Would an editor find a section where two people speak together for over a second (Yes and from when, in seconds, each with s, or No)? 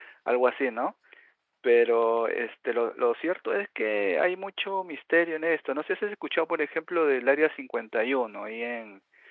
No